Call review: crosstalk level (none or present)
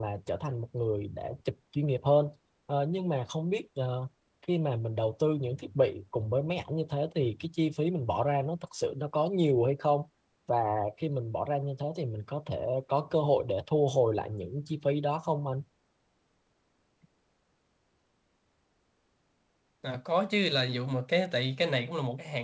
none